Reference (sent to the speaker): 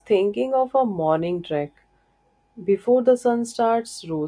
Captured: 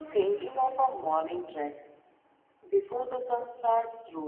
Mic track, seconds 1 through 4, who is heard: echo only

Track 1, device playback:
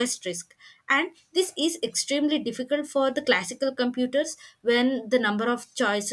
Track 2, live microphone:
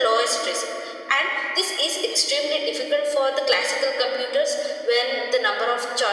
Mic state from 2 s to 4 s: echo only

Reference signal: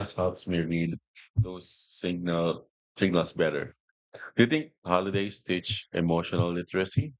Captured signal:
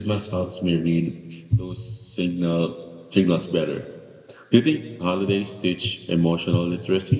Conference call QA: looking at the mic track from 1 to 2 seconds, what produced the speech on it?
echo only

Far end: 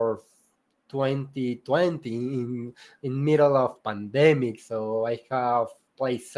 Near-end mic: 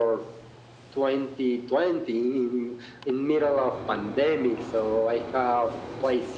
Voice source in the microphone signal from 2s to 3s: echo only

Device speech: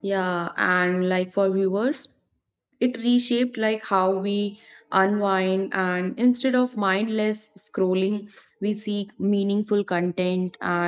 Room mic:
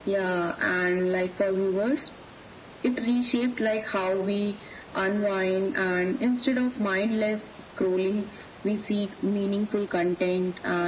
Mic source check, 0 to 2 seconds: echo only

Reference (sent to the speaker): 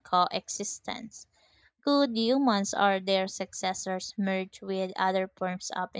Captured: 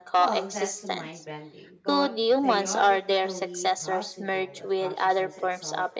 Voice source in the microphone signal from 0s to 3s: both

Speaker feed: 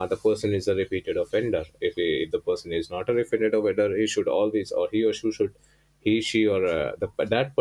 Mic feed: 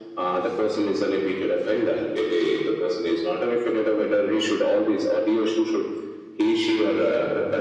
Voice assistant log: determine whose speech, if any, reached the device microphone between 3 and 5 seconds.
echo only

